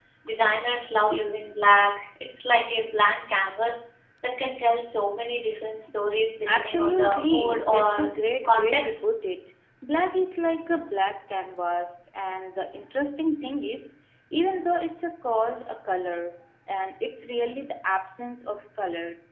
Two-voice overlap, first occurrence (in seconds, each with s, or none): 6.5 s